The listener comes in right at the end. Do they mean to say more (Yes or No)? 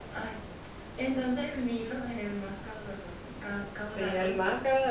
Yes